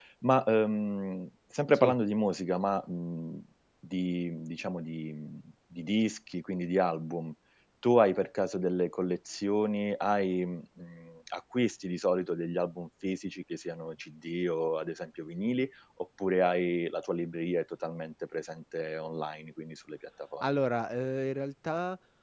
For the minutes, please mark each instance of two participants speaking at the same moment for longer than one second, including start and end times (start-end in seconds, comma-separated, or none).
none